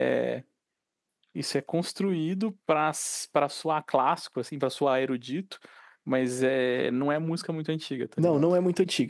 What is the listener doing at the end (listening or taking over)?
taking over